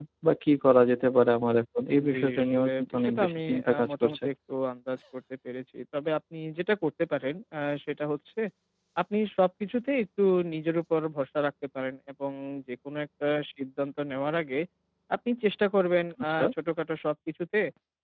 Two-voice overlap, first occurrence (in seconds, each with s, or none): 2.1 s